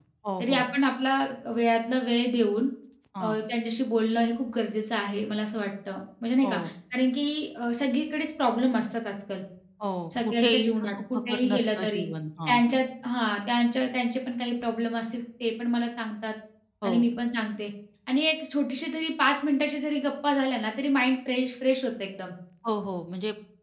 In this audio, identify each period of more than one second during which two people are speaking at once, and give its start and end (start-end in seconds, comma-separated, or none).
10.4-12.1